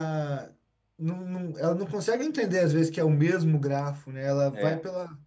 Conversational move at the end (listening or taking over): listening